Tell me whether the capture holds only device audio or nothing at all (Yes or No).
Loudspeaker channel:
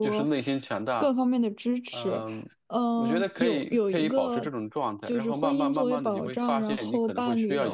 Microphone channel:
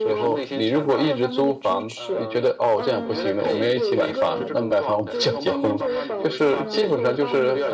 No